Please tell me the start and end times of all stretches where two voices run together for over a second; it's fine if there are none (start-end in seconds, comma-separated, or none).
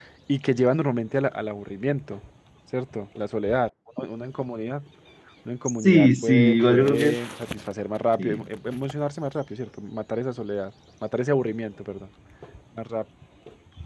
5.7-7.2